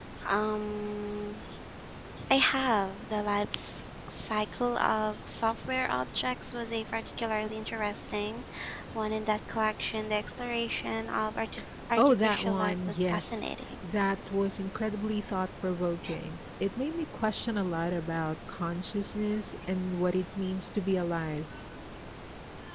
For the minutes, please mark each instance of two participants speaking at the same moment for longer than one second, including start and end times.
12.0-13.4

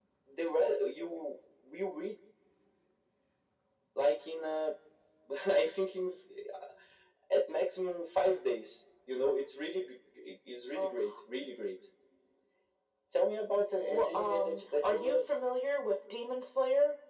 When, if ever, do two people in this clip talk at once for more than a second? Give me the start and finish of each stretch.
13.9-15.2

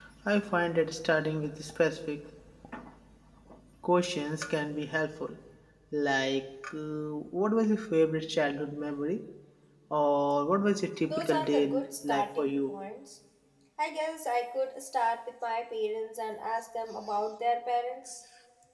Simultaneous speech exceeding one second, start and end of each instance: 11.0-12.7

